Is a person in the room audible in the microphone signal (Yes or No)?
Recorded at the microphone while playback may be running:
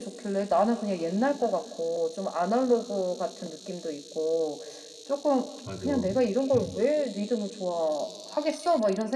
Yes